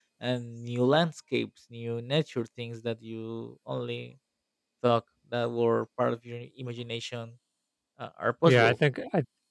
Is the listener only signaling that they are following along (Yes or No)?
No